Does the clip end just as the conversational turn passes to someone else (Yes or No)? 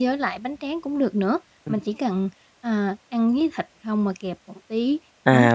Yes